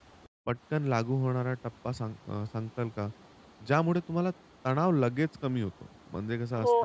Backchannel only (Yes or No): No